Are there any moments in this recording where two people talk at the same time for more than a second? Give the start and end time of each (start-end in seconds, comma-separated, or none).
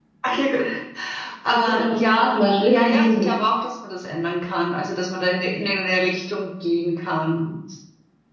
1.5-3.3